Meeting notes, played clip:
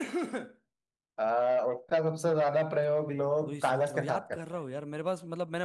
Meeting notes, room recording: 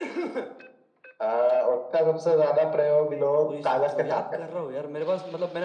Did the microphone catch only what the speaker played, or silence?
Yes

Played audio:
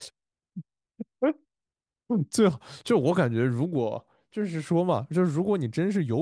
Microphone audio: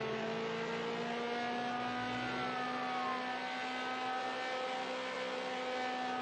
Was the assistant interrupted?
No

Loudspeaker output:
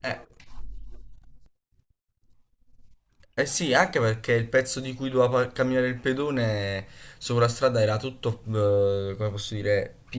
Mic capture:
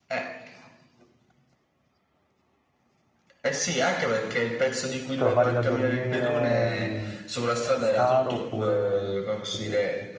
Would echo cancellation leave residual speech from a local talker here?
Yes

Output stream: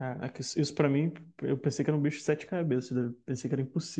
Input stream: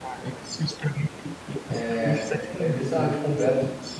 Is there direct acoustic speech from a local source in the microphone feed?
Yes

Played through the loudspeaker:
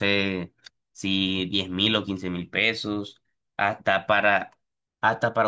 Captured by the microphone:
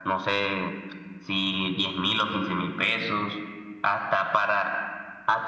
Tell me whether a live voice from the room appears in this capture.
No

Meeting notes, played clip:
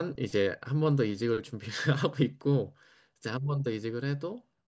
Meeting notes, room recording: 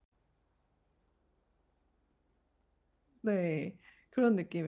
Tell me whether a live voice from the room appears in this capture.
Yes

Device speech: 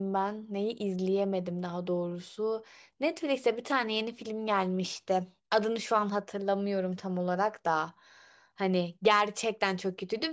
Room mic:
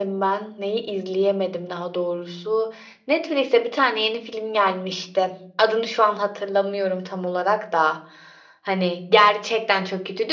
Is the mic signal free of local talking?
Yes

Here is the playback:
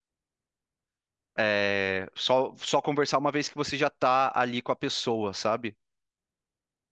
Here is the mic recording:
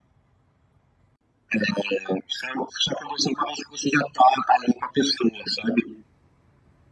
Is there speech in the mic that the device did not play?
No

